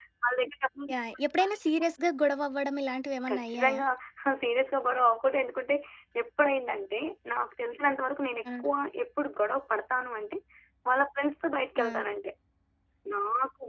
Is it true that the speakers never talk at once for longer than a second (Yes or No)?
Yes